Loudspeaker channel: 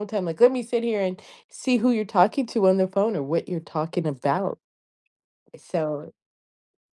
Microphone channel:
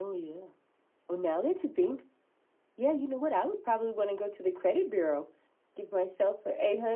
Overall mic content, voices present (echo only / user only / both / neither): user only